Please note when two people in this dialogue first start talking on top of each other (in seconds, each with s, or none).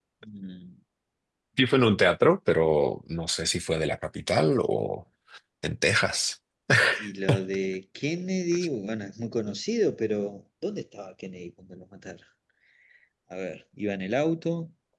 none